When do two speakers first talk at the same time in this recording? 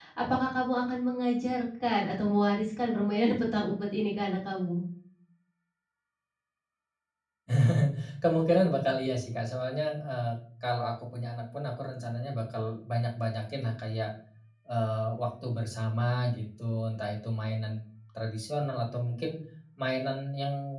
none

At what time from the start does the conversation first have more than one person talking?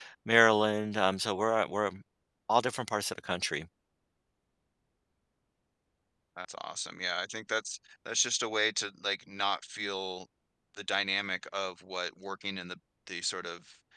none

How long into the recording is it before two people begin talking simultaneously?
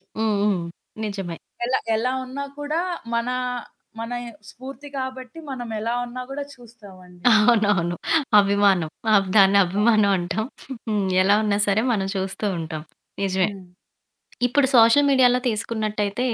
none

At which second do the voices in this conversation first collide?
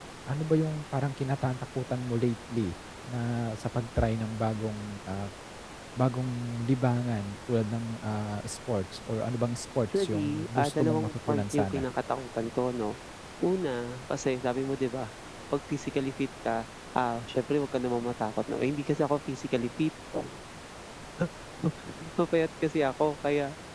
9.9 s

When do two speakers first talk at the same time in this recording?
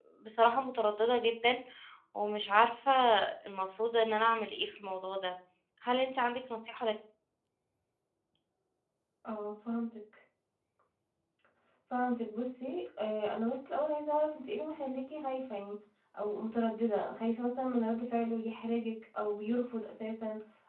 none

